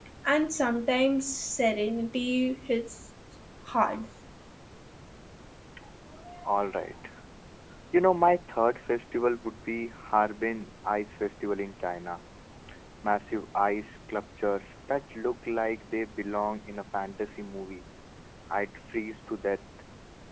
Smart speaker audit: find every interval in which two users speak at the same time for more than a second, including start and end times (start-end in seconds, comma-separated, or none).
none